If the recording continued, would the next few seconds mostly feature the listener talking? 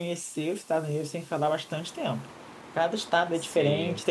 No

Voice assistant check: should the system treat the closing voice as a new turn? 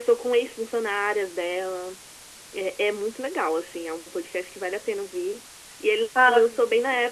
No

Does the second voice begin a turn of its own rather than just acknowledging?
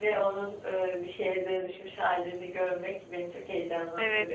Yes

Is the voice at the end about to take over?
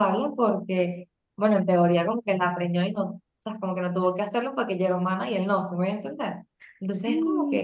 No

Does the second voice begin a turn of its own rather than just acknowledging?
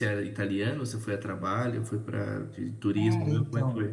Yes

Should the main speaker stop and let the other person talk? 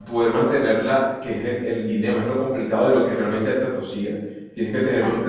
No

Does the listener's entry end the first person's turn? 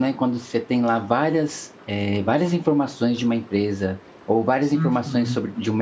No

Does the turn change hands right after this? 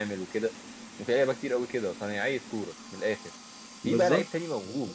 No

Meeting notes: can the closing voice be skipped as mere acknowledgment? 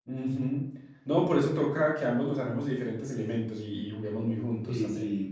No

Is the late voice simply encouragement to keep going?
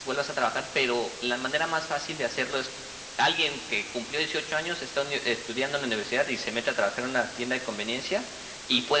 Yes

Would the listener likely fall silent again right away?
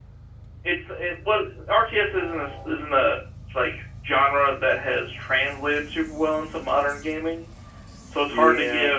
Yes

